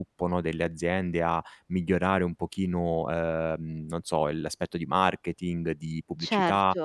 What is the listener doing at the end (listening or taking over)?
listening